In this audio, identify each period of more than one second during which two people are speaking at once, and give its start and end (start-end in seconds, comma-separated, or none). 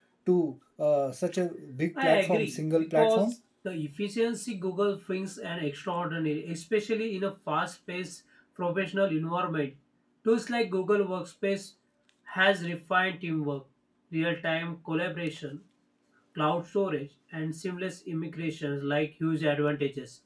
2.0-3.3